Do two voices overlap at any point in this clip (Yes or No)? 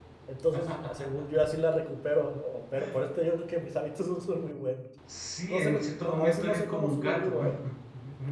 Yes